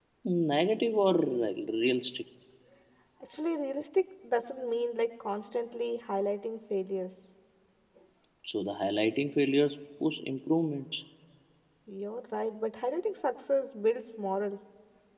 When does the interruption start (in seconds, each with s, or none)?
none